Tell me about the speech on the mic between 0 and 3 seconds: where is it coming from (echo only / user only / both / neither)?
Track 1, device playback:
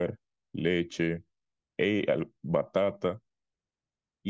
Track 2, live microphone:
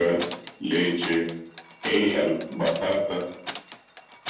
echo only